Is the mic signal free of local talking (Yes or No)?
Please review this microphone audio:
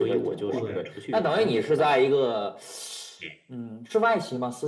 No